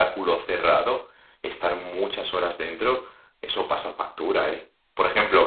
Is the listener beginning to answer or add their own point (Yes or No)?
No